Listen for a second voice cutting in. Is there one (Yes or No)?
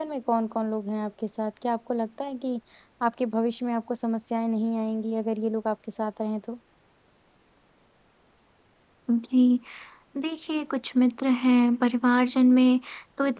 No